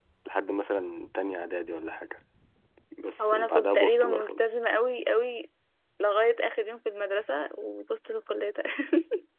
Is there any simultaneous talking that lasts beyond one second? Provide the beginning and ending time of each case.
3.2-4.4

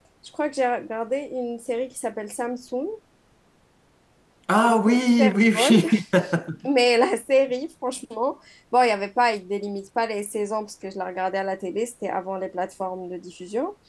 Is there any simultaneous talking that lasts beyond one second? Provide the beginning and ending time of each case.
4.6-5.8

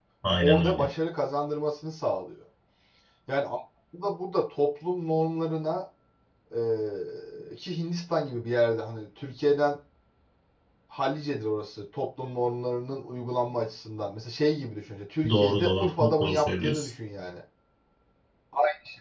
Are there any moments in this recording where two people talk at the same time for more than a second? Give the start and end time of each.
15.3-16.9

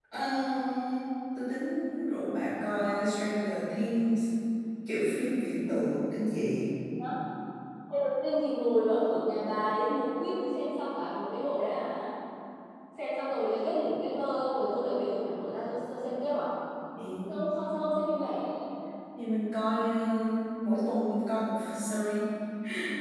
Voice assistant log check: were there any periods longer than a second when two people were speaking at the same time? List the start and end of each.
none

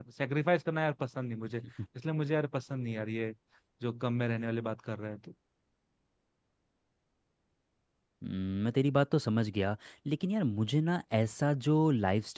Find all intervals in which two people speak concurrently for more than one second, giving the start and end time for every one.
none

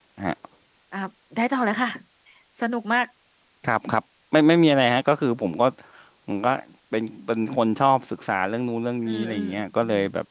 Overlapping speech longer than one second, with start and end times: none

